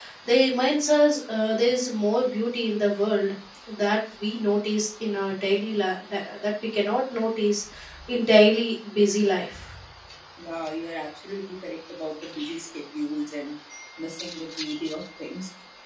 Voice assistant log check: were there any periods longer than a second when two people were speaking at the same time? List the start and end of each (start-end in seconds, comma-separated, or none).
none